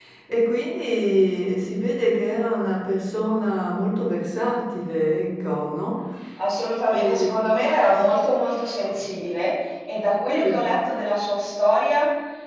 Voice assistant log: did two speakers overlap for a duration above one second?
No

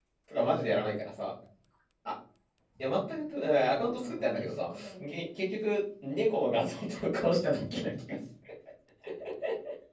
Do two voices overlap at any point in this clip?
Yes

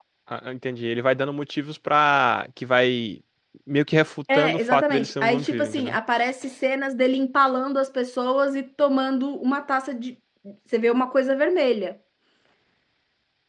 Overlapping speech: Yes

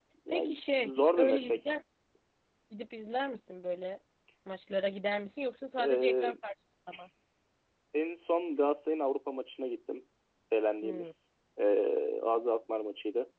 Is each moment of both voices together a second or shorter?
No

